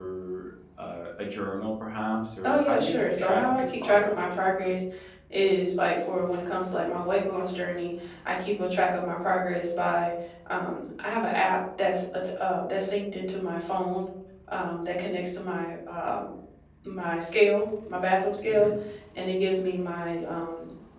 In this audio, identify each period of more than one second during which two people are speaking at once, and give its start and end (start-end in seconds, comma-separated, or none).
2.4-4.8